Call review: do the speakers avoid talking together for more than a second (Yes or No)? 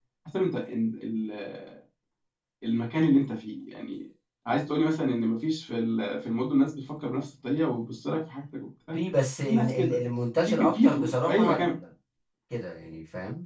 No